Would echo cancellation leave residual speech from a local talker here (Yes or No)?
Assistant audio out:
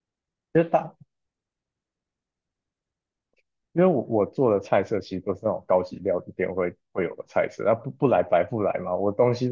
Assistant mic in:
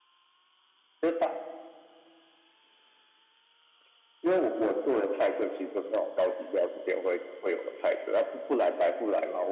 No